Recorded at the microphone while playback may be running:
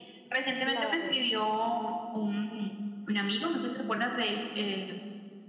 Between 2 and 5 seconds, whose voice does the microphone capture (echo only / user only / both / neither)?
echo only